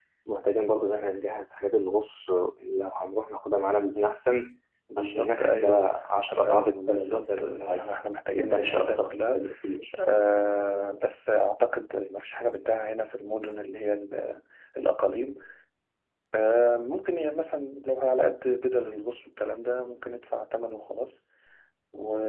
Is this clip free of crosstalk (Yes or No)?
No